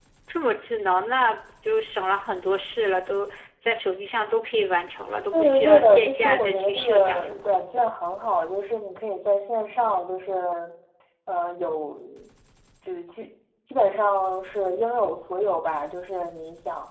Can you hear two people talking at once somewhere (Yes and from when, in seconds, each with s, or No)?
Yes, from 5.3 s